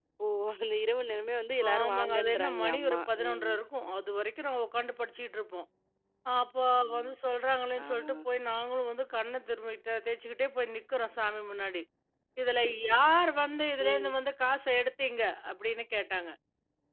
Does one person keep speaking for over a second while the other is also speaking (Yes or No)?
Yes